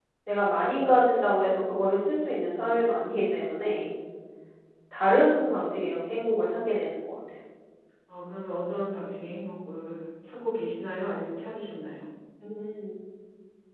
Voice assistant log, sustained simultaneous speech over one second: none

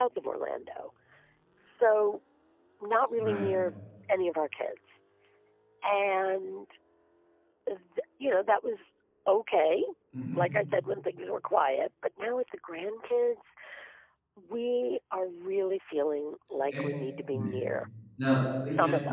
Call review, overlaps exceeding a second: none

